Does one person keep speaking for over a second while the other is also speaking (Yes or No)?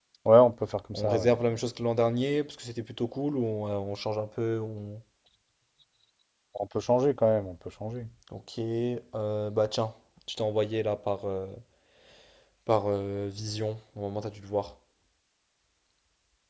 No